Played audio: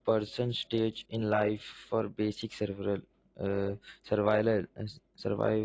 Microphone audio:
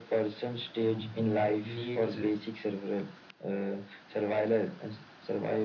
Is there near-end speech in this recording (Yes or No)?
Yes